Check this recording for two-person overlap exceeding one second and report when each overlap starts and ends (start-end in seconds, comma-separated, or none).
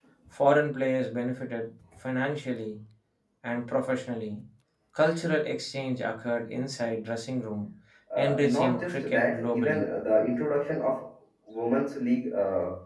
8.2-9.9